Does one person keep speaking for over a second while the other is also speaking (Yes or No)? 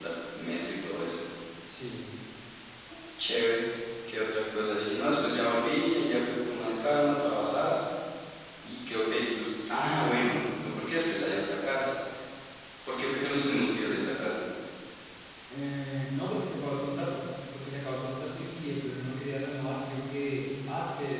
No